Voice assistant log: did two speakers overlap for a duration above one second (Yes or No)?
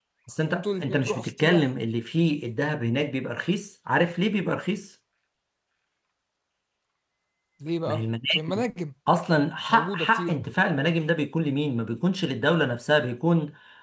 Yes